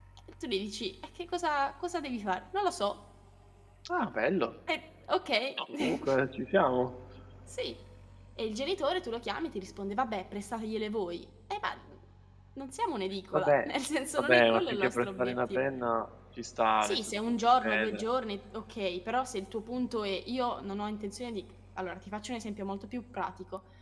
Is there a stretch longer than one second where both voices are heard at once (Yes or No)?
Yes